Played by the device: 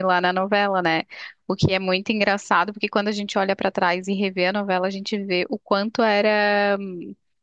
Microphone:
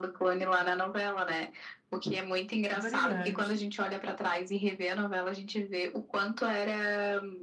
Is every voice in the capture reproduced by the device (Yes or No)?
No